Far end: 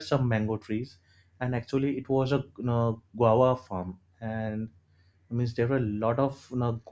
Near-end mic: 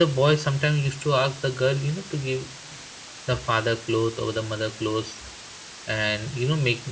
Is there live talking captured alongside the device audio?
Yes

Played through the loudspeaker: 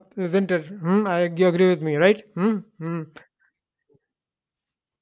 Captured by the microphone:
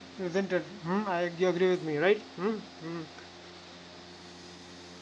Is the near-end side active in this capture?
No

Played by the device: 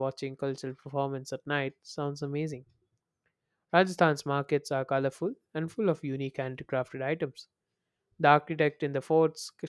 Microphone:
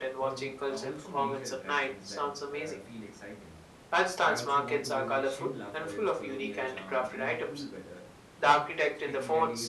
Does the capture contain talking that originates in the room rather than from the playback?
Yes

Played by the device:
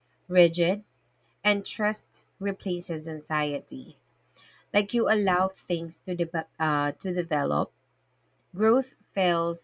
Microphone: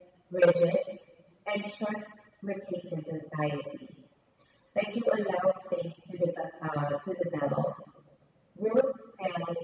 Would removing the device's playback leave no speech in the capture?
Yes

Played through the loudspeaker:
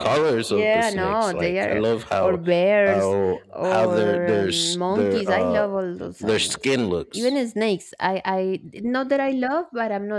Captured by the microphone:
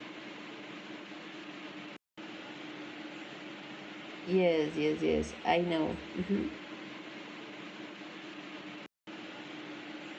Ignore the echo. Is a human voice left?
Yes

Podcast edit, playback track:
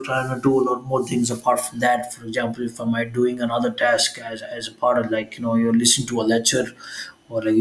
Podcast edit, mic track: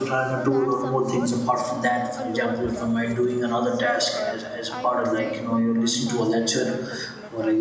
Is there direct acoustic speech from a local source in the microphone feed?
Yes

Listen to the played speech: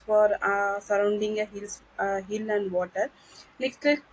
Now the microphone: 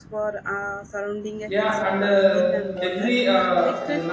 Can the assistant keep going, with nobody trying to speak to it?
No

